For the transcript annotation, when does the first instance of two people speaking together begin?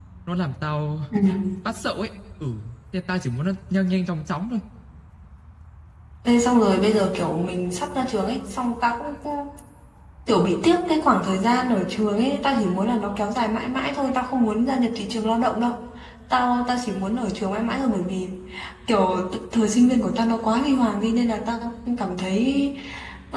none

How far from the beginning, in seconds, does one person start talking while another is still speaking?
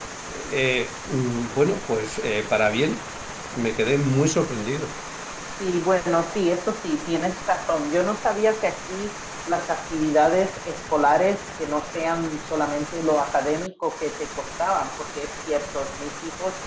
none

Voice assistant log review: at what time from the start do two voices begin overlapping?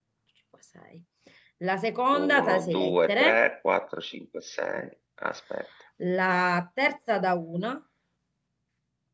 2.1 s

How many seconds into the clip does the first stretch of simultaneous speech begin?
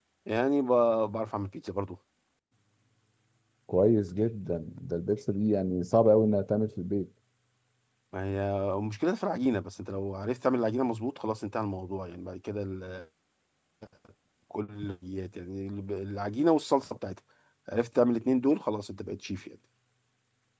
none

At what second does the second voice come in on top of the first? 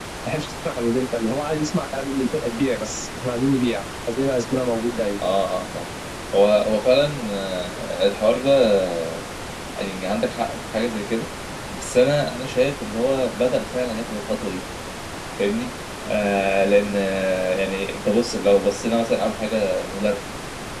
none

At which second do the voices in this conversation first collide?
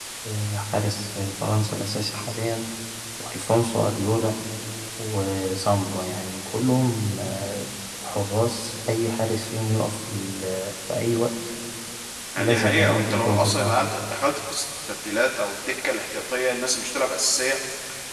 12.4 s

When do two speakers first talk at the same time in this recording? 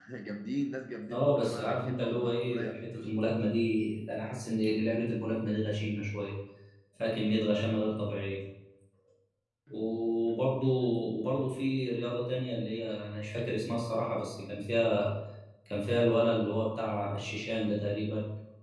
1.1 s

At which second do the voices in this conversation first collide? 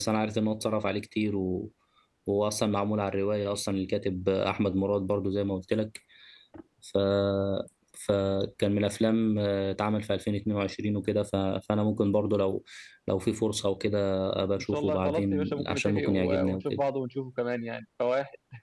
14.6 s

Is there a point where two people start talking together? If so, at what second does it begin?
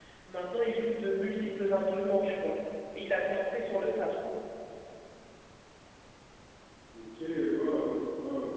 none

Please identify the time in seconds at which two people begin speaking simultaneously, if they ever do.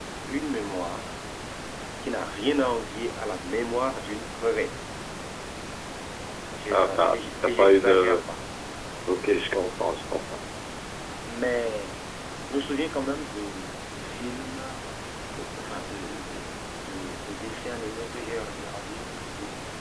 6.7 s

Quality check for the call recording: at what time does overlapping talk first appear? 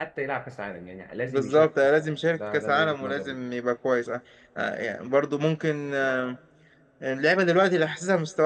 1.3 s

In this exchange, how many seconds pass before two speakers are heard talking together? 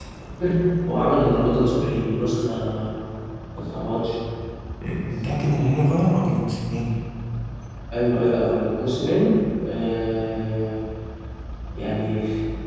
none

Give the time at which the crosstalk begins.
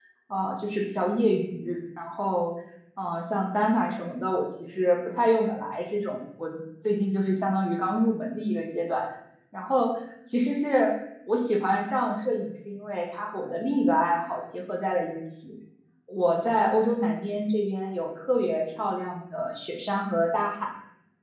none

